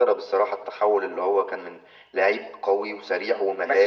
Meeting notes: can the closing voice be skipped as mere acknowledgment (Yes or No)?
No